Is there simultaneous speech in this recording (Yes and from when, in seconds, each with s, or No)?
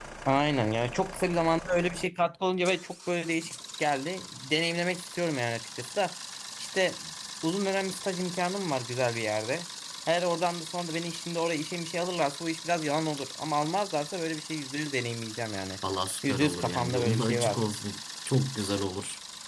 Yes, from 16.3 s